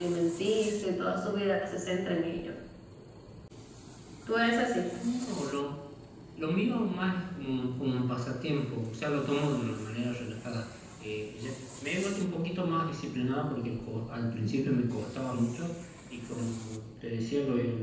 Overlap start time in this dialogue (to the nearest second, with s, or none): none